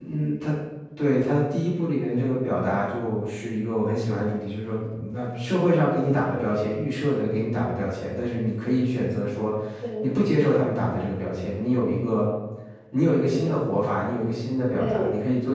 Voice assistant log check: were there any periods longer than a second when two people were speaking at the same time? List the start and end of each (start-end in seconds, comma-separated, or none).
none